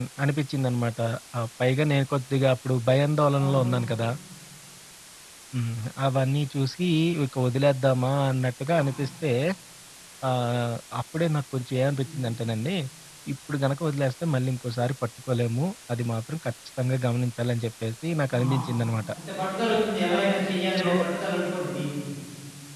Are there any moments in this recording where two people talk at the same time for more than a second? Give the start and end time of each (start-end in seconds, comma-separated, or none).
none